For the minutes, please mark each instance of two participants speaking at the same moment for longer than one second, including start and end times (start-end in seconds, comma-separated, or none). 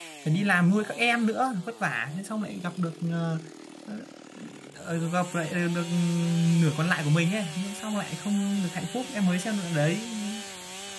none